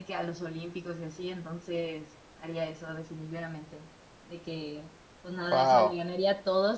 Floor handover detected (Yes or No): No